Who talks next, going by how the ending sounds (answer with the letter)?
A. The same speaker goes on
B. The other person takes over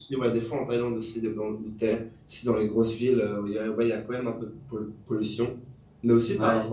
A